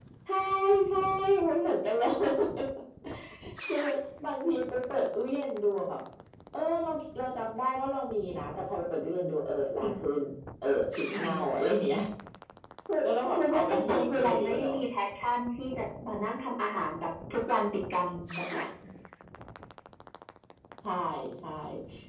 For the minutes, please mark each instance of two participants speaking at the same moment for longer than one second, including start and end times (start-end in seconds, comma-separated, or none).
13.0-14.8